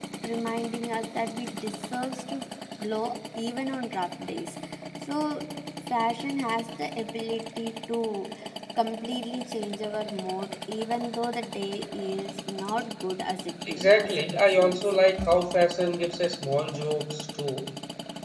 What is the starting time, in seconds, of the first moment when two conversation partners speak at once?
13.7 s

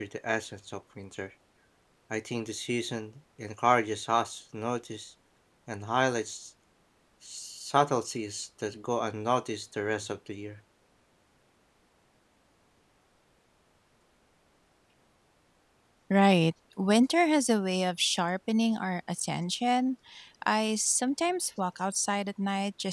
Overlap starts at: none

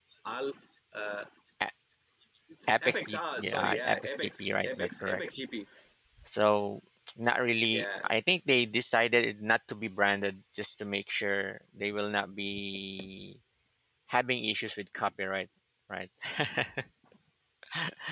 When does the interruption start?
2.7 s

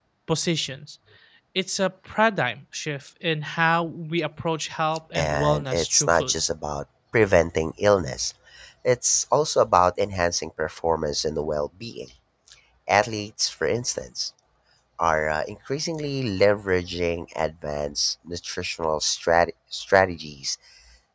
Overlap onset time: 5.1 s

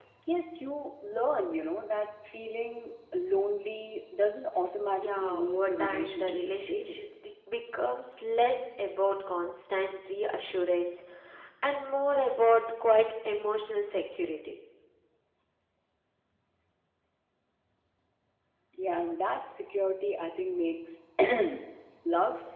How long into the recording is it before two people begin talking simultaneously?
5.0 s

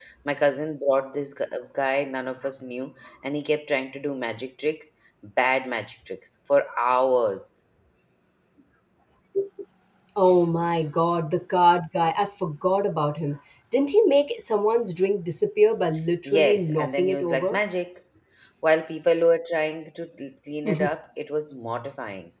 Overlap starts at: 16.2 s

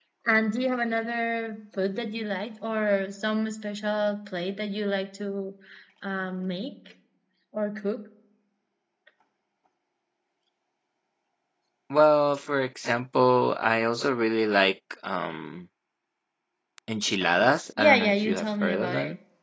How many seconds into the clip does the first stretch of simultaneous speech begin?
17.8 s

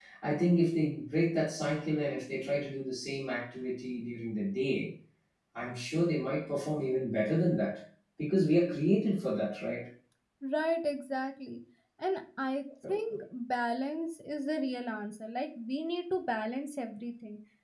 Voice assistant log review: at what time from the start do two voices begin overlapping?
none

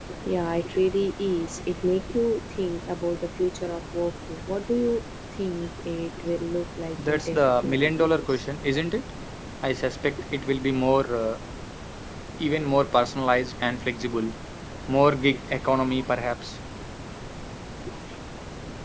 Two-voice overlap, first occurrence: 7.0 s

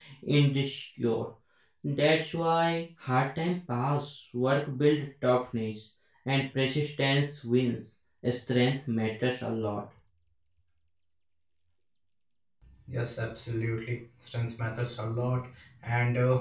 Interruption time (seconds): none

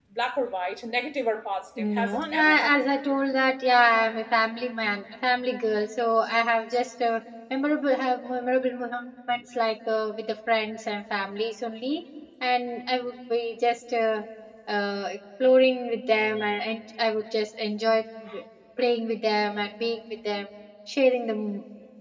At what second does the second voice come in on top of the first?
1.8 s

